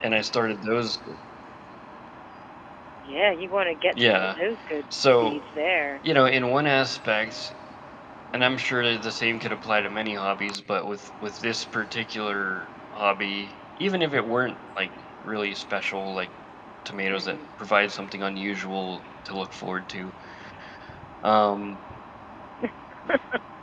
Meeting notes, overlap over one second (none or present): none